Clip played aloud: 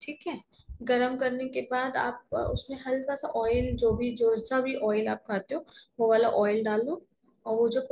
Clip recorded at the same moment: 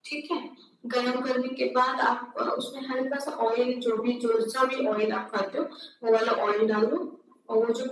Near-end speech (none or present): none